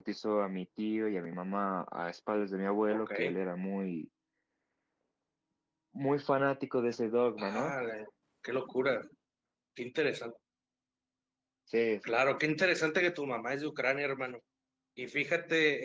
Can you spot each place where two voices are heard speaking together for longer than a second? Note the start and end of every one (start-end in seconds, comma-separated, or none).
none